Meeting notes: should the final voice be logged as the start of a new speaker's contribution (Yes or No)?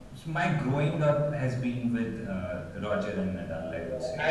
Yes